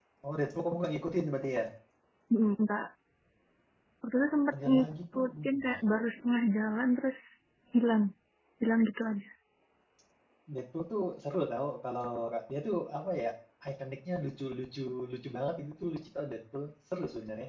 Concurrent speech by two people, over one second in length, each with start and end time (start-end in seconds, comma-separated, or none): 4.6-5.9